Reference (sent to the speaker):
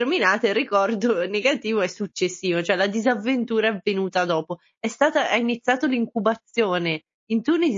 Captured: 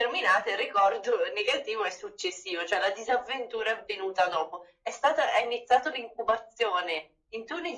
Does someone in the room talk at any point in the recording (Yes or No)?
No